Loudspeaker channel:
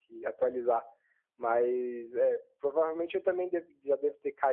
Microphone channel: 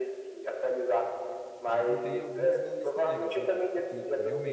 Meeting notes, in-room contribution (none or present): present